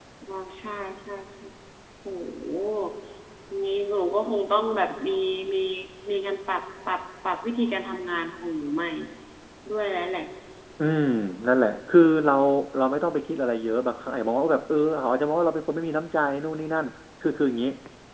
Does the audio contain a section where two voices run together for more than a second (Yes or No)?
No